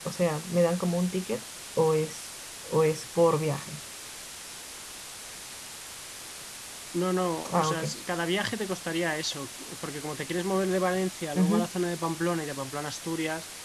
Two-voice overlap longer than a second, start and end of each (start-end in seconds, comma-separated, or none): none